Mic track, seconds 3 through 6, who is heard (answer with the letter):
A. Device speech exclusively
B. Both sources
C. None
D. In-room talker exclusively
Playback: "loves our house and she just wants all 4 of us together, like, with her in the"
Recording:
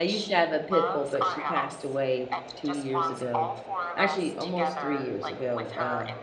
B